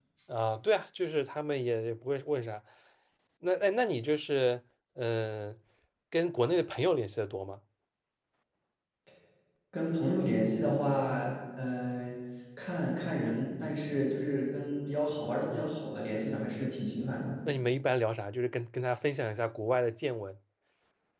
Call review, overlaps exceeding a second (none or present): none